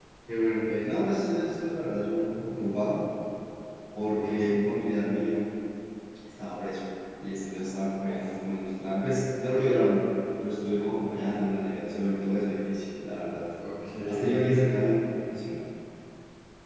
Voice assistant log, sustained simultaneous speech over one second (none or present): none